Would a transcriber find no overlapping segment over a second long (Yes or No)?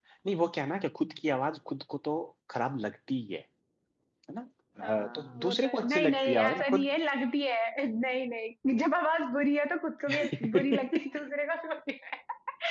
No